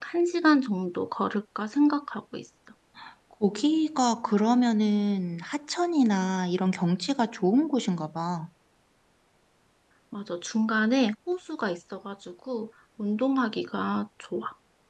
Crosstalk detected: No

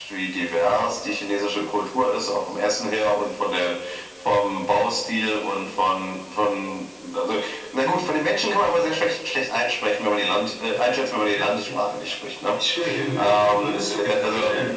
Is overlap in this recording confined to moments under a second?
No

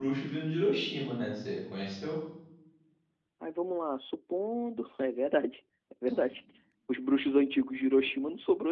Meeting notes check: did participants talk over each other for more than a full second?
No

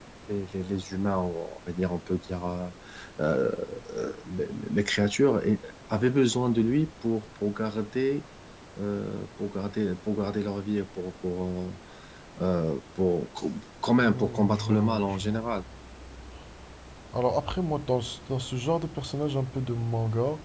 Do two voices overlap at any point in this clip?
Yes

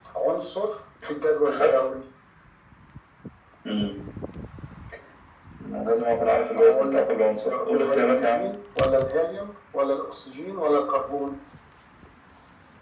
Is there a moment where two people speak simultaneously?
Yes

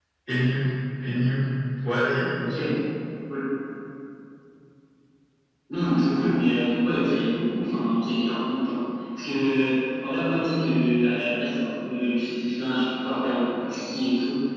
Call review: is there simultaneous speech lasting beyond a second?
No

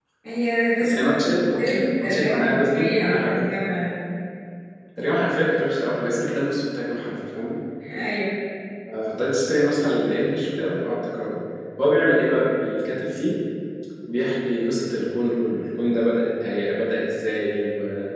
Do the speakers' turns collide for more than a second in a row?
Yes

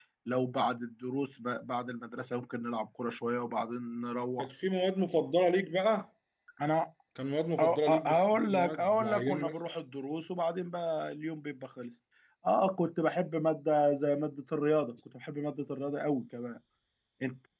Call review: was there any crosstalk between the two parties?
Yes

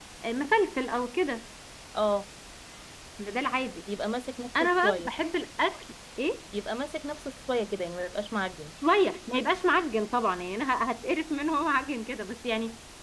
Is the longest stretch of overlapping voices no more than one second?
Yes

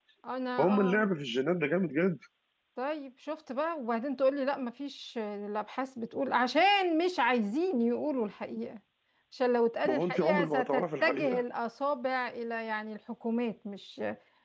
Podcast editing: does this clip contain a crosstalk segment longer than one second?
Yes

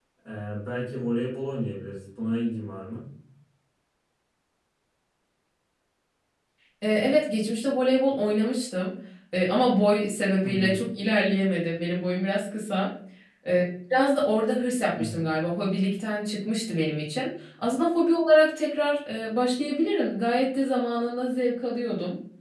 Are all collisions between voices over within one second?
Yes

